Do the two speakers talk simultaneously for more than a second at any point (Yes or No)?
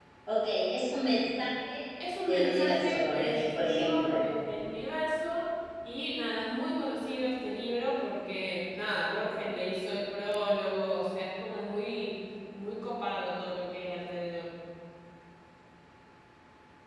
Yes